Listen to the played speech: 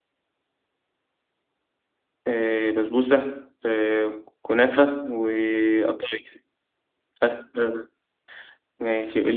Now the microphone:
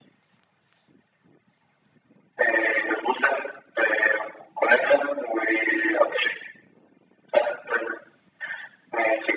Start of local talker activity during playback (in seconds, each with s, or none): none